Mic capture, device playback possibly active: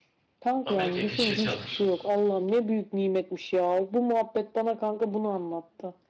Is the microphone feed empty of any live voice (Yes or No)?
No